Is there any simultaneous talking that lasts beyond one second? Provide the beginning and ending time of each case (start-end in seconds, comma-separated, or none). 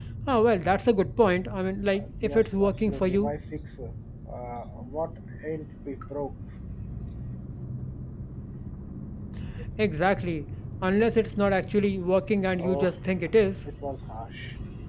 1.9-3.3